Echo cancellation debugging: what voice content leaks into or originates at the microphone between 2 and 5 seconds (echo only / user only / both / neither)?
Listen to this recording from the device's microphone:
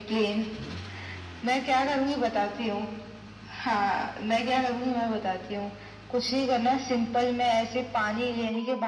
echo only